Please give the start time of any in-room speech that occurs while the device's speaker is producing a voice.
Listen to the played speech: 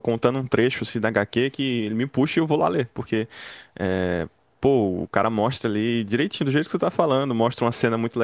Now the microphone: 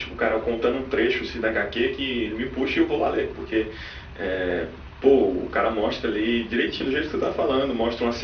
none

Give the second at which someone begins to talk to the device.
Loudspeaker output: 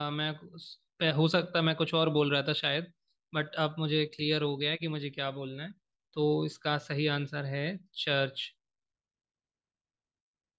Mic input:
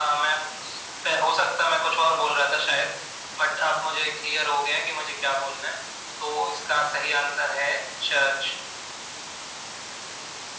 none

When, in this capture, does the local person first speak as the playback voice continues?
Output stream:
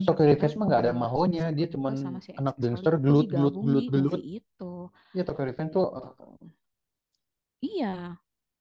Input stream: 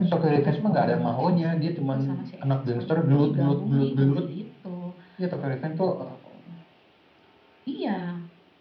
none

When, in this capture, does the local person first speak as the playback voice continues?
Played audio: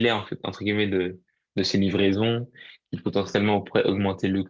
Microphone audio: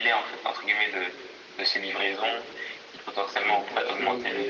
3.4 s

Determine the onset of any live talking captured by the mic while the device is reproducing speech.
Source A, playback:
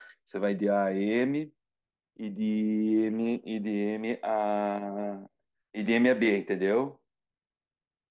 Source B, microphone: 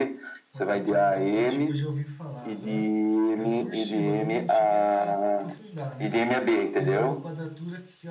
0.5 s

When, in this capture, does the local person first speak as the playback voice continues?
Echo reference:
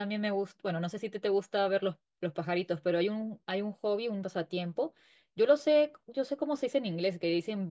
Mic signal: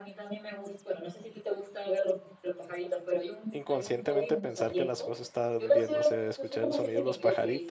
3.5 s

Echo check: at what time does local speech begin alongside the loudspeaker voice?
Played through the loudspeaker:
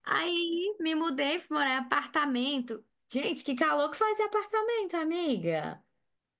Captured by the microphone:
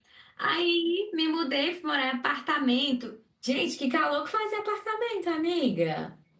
none

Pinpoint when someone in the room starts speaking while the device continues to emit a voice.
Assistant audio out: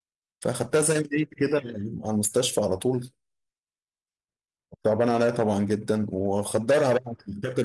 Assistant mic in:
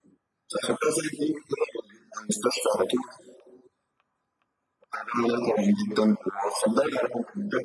none

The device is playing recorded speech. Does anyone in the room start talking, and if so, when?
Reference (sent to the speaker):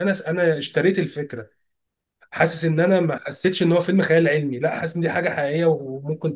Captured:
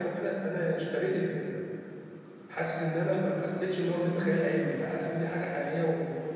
none

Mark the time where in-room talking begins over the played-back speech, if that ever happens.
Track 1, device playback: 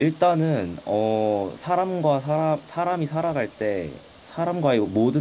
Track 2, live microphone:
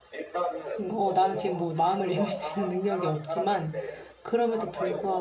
0.8 s

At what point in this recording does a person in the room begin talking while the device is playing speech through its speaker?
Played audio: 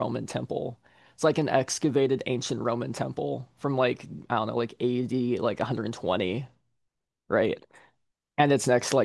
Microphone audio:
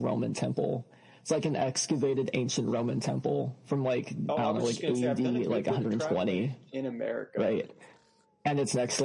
4.3 s

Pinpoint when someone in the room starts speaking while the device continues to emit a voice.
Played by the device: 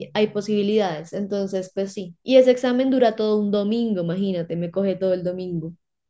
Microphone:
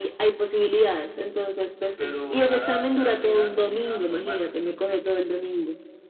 2.0 s

